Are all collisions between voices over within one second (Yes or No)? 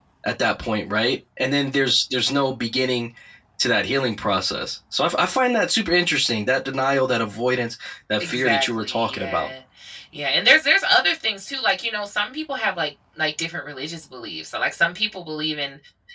No